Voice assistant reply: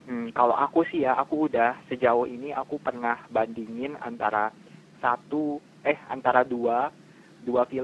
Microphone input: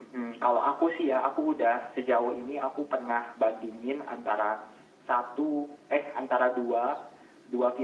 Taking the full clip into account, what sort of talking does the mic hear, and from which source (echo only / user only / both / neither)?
echo only